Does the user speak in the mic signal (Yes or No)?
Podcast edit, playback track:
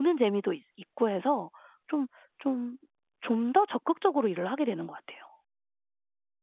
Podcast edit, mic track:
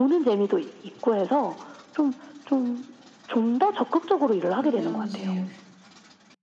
Yes